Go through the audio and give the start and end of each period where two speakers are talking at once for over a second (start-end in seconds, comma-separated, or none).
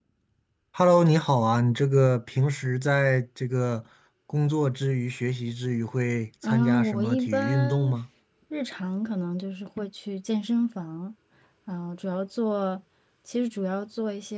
6.4-7.9